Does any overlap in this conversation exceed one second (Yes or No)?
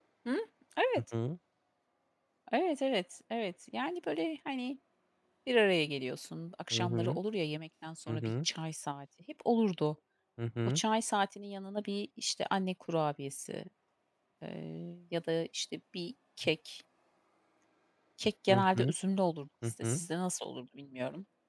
No